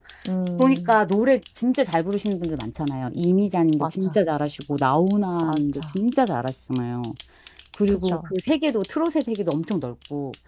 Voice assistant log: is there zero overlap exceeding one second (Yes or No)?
Yes